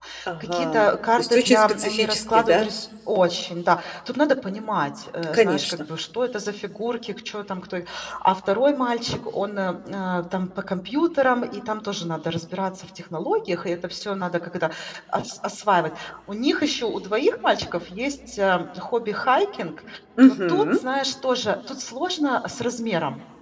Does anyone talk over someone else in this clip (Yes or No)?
Yes